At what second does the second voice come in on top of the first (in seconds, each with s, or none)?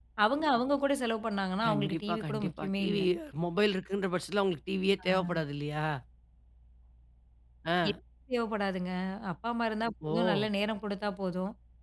1.7 s